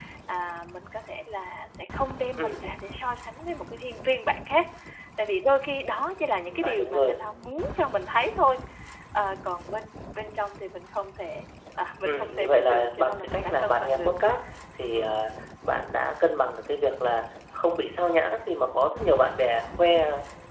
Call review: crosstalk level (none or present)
present